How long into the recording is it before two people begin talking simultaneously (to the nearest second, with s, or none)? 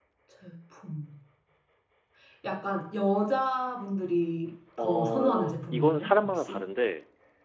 5 s